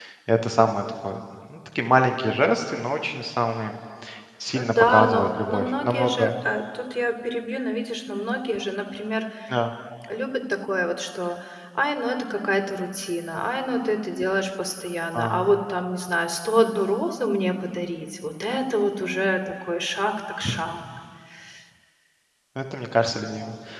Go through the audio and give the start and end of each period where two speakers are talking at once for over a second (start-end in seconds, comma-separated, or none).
4.5-6.3